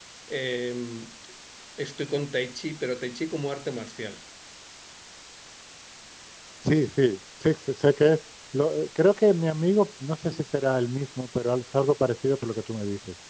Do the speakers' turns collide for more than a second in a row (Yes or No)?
No